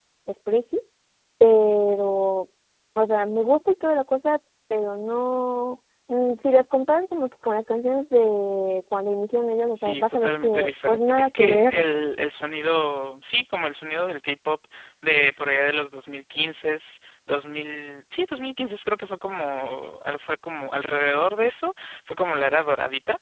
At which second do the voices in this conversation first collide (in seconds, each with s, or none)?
9.7 s